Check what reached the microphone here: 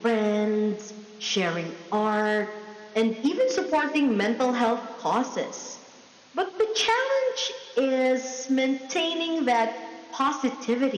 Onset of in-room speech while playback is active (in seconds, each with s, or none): none